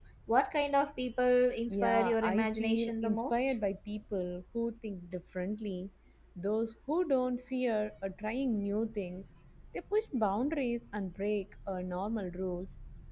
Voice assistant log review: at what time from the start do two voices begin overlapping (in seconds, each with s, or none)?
1.7 s